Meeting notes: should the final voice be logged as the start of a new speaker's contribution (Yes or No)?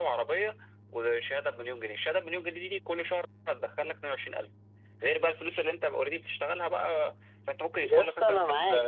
Yes